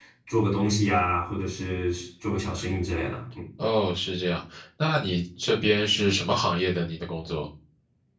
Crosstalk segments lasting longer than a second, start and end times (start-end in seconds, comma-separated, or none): none